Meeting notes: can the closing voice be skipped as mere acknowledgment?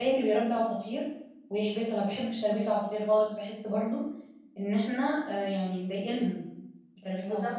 No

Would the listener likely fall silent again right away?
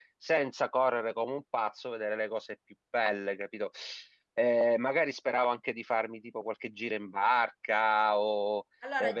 No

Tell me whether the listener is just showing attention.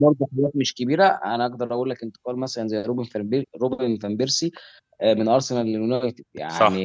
Yes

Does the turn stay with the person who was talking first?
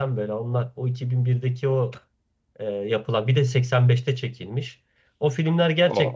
Yes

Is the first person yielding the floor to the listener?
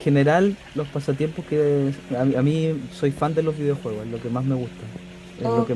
No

